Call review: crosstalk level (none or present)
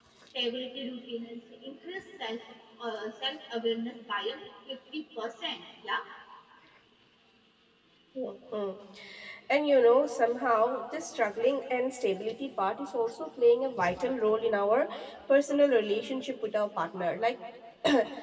none